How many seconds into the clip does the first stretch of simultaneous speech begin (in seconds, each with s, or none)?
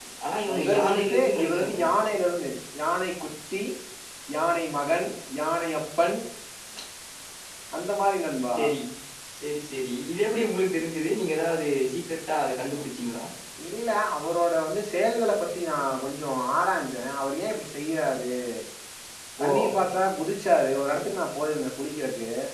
0.5 s